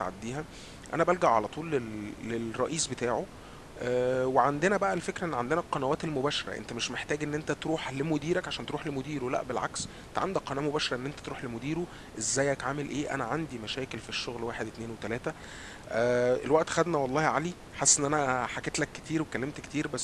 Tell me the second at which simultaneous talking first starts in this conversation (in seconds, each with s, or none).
none